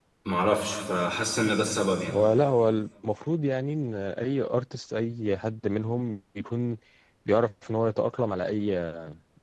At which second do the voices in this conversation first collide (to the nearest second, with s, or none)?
none